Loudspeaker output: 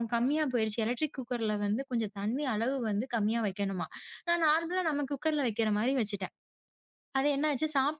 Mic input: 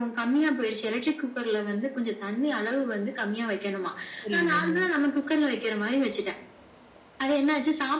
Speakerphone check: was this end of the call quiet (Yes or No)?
No